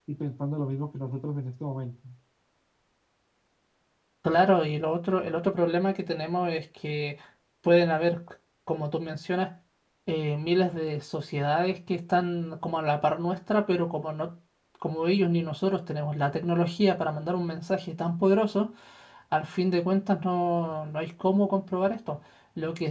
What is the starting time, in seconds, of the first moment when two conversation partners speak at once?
none

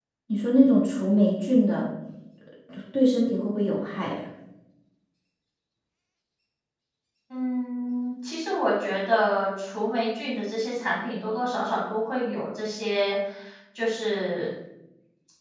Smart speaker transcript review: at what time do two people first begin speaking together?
none

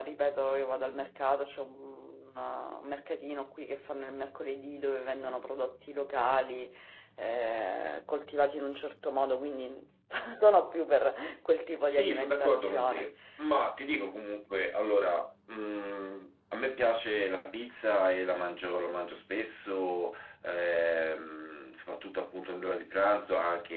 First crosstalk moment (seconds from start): 11.9 s

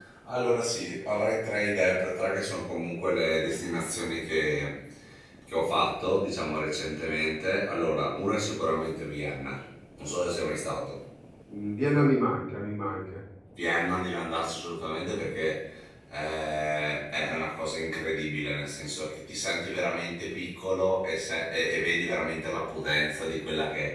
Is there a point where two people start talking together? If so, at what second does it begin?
none

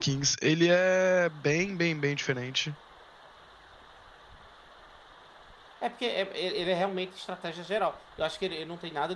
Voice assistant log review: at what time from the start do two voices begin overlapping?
none

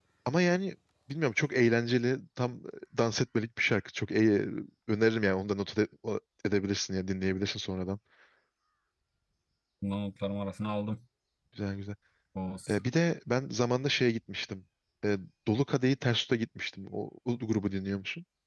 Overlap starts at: none

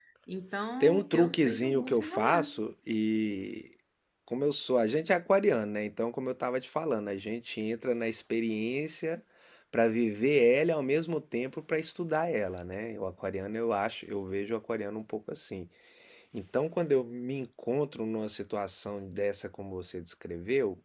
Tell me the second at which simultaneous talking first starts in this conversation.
0.8 s

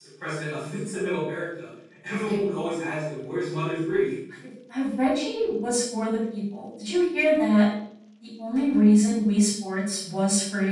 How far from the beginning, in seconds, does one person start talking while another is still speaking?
none

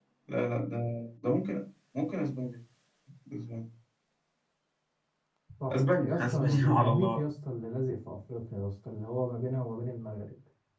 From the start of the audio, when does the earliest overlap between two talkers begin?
5.7 s

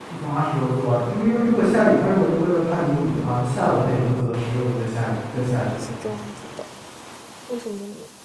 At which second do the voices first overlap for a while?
none

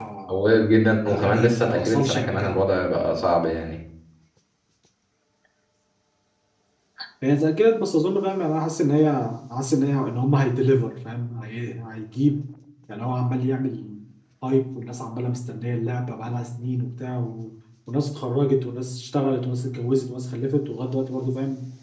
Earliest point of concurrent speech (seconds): 1.1 s

